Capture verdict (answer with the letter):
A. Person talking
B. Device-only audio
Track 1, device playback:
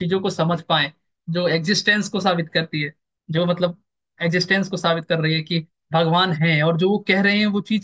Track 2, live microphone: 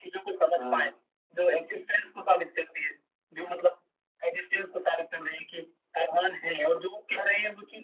A